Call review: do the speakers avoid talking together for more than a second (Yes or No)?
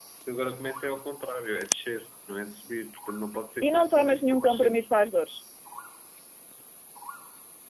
No